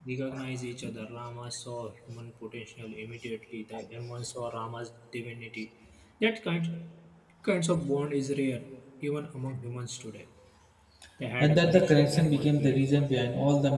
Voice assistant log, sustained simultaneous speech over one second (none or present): present